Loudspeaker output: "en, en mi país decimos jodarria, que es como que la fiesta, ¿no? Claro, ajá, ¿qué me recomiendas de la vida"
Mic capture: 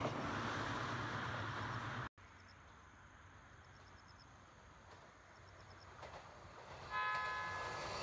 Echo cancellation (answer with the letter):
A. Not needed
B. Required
A